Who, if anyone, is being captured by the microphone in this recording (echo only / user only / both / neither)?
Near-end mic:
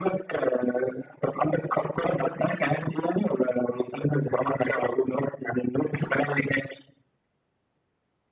echo only